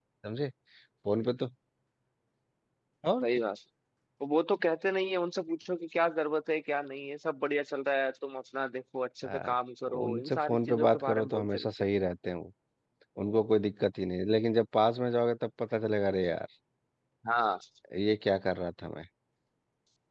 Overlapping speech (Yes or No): Yes